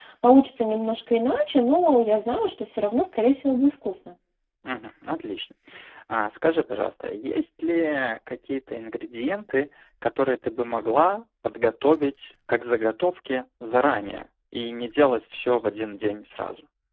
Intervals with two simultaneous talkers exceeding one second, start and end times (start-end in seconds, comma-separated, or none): none